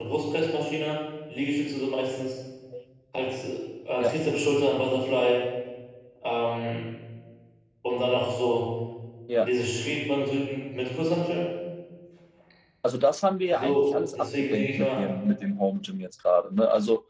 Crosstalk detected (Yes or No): Yes